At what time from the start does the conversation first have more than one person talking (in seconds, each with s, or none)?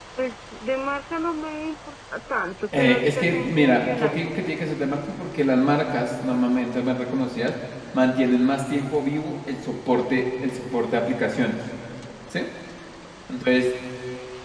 2.7 s